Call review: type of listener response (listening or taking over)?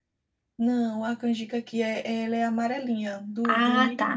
taking over